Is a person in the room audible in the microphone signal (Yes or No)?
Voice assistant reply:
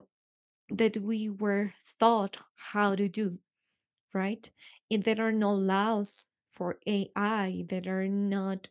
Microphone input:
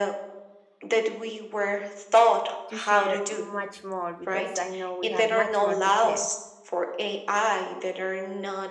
Yes